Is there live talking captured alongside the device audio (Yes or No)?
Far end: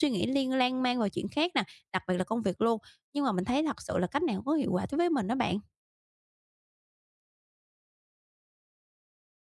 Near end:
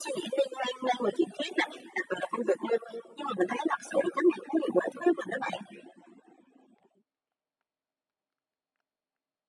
No